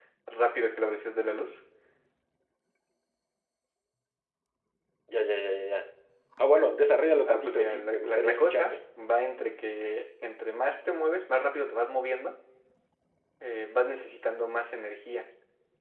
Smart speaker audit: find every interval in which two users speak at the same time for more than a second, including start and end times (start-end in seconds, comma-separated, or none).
7.2-8.8